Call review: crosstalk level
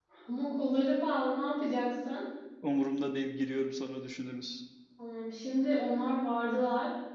none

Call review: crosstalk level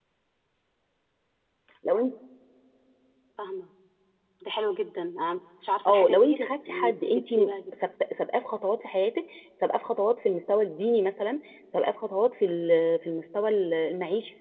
present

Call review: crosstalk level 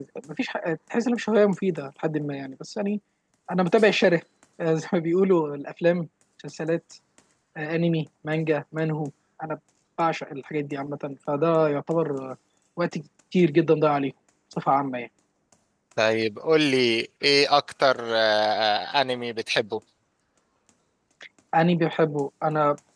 none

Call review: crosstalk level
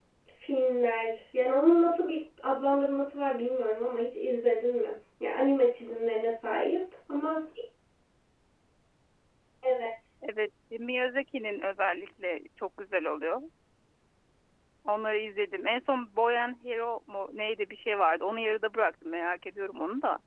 none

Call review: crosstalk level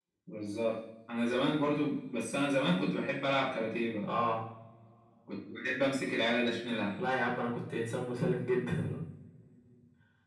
none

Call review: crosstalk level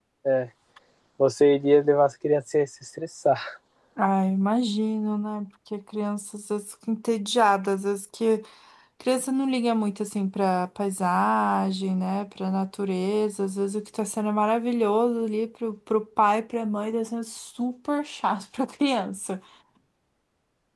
none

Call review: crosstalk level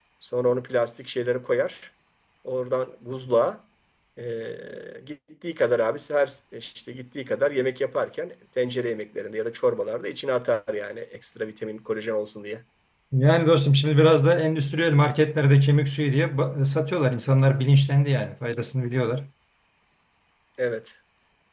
none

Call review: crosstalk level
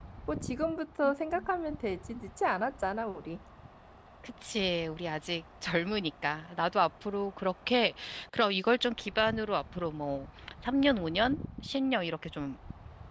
none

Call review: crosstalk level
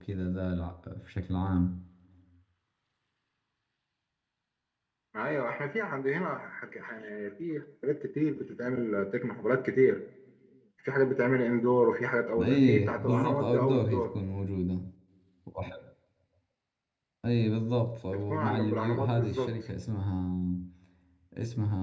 present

